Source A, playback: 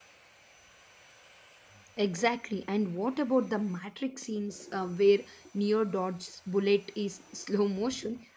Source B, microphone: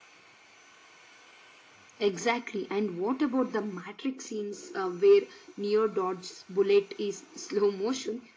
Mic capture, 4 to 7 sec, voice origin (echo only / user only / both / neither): echo only